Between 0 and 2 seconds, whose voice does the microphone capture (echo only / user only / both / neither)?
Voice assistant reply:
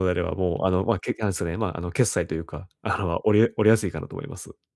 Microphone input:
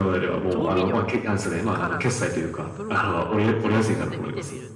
both